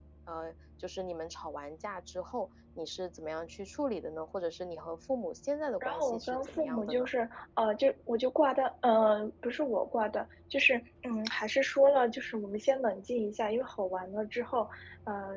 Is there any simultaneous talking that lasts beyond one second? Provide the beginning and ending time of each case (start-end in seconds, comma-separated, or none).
5.8-7.1